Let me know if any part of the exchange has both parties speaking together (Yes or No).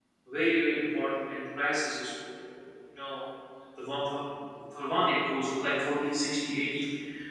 No